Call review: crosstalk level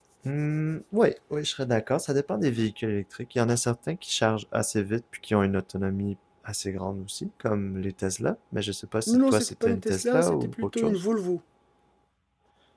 present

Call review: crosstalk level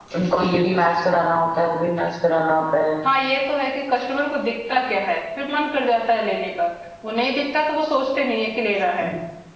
none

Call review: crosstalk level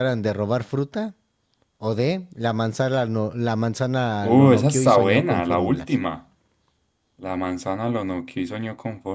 present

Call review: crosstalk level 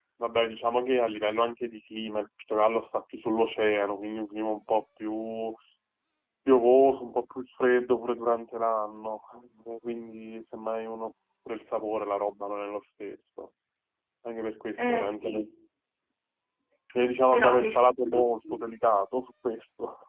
present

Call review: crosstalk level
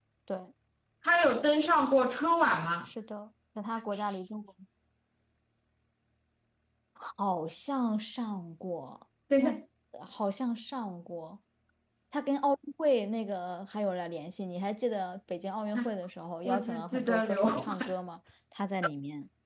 present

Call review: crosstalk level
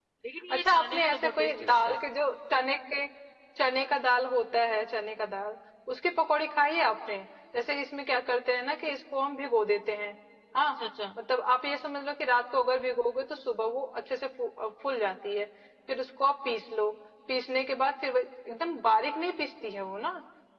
present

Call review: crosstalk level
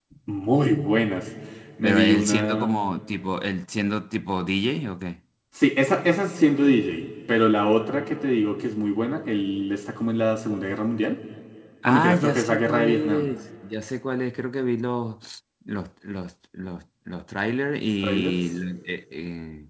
present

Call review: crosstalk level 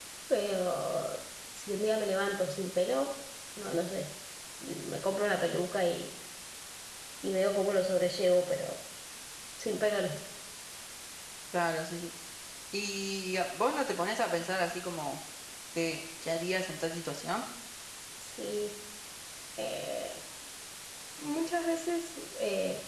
none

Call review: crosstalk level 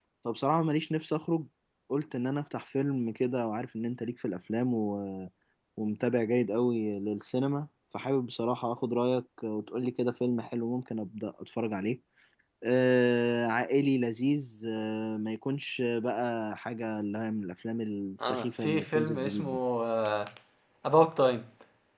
present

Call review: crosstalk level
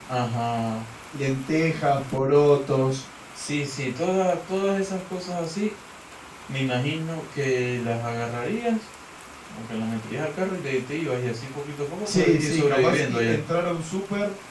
present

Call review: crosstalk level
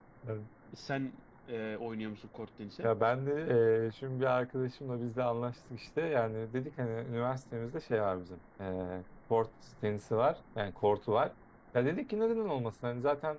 none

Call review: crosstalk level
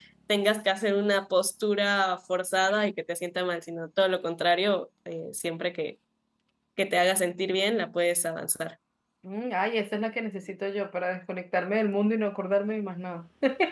none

